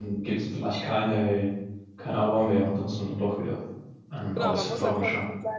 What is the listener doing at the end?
taking over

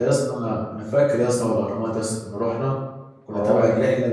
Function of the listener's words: listening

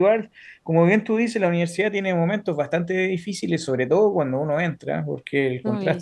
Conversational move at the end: listening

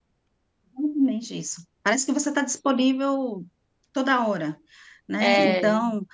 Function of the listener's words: listening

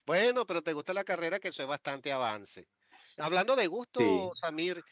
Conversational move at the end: listening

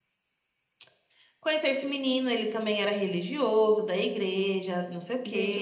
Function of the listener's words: taking over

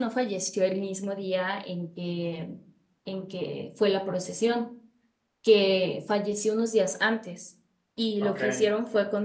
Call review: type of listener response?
listening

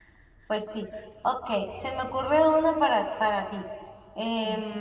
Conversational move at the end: listening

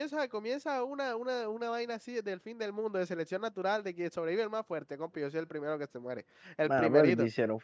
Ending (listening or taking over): taking over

